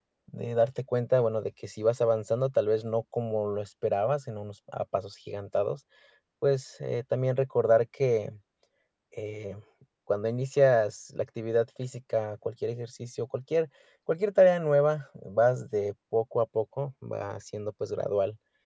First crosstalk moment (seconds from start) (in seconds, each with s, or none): none